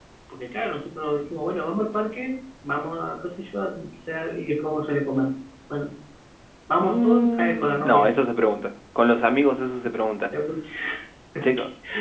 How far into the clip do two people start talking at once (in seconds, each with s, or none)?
6.8 s